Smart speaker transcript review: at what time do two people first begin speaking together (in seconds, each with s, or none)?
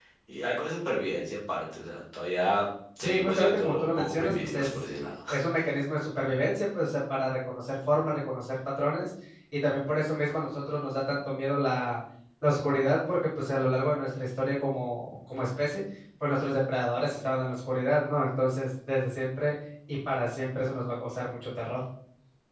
3.0 s